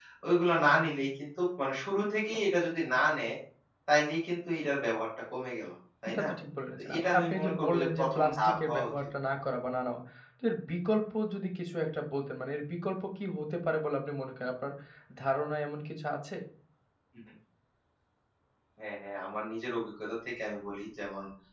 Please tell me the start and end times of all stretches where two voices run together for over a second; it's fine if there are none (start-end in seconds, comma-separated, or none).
6.8-8.9